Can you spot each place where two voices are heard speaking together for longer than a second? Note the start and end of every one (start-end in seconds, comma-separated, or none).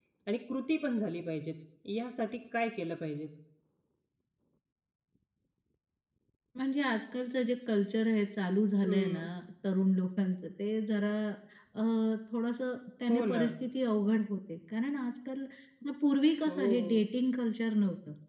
none